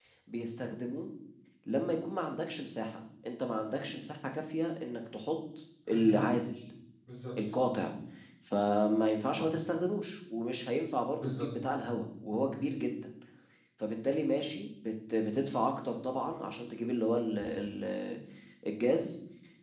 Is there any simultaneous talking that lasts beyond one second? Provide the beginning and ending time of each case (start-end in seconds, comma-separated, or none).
none